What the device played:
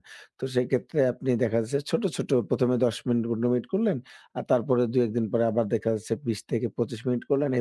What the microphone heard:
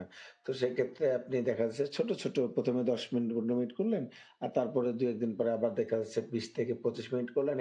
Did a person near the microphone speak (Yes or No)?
No